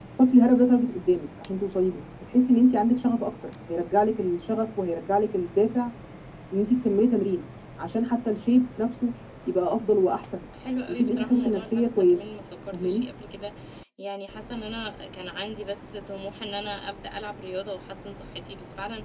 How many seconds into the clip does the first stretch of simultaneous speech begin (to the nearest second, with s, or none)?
11 s